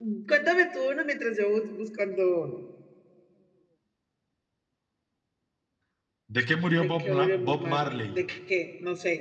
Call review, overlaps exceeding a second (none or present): present